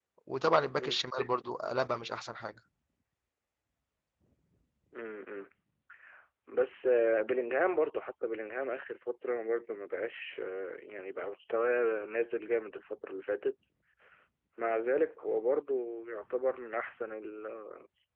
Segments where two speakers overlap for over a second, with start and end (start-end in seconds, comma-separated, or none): none